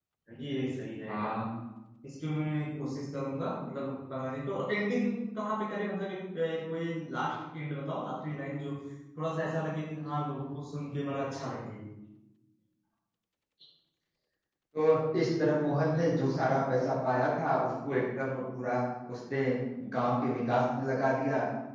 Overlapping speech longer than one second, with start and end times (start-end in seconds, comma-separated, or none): none